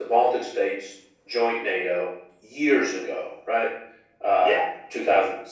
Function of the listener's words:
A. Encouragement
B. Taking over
A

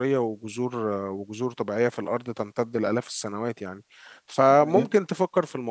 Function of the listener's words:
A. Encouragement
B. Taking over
A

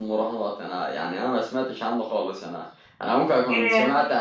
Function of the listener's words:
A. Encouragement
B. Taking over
A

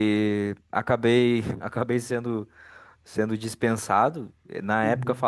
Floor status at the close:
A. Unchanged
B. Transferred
A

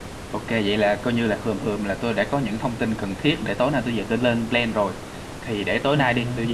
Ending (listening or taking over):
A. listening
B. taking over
A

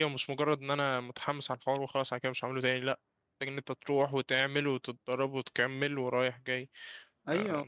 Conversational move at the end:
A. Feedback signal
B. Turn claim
B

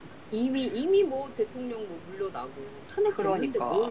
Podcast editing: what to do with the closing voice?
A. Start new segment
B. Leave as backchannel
A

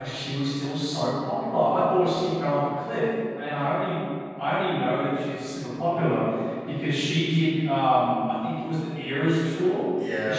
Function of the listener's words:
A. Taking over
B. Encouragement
B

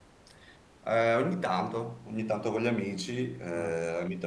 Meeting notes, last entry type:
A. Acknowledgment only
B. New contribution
A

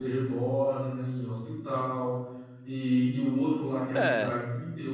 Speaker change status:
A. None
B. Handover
A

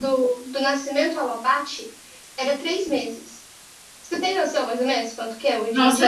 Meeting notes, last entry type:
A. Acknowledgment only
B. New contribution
B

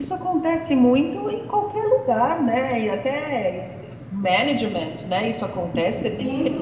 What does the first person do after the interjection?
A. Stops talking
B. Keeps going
A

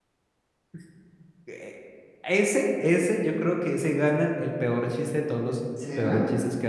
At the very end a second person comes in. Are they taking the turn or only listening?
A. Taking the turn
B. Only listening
B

